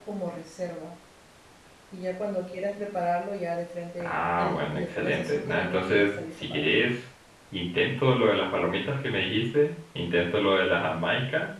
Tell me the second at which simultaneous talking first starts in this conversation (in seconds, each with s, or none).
4.0 s